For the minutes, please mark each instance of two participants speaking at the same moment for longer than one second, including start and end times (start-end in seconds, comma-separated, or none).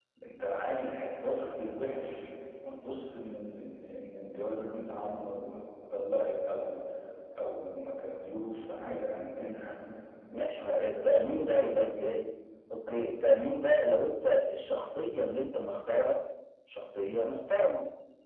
10.6-11.9